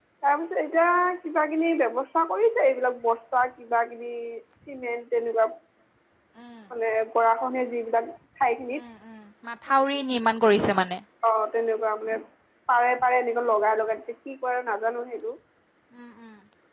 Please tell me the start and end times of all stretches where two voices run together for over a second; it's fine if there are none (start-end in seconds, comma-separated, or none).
none